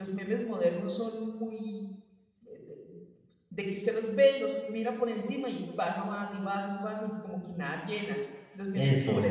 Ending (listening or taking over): listening